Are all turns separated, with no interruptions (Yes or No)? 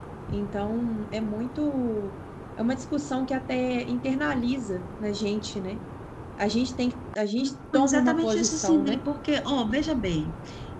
No